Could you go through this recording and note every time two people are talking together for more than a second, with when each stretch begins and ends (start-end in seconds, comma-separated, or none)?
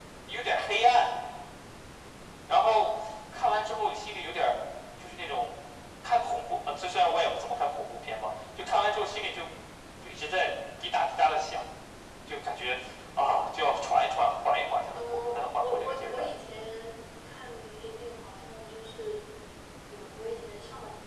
14.9-16.3